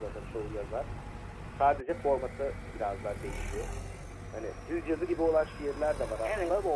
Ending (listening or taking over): listening